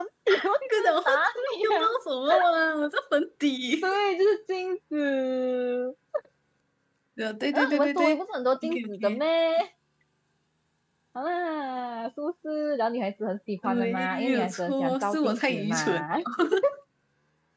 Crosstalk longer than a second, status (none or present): present